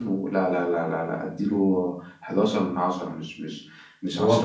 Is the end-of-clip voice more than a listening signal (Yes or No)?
Yes